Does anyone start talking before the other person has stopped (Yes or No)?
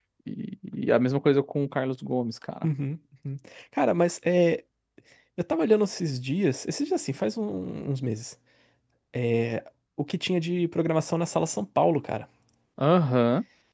No